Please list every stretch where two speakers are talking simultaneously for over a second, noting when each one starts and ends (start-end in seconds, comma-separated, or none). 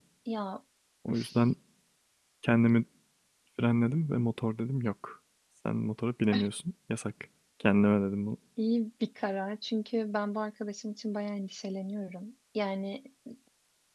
none